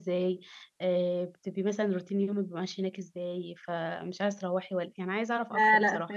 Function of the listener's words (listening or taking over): taking over